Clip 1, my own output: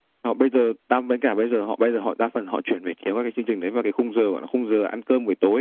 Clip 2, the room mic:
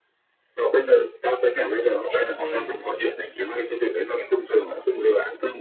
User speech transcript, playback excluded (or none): SV